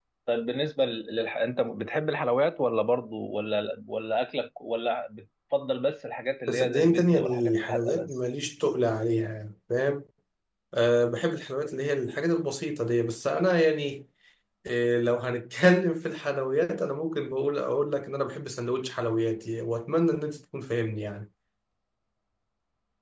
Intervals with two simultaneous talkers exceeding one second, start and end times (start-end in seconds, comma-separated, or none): 6.5-8.1